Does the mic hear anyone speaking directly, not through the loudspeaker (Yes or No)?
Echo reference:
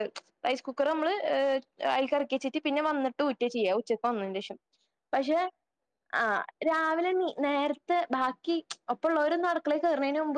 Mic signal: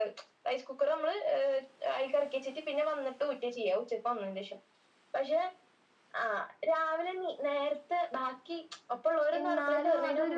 Yes